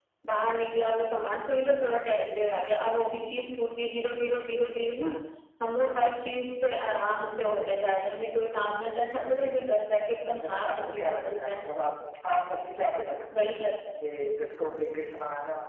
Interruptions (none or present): present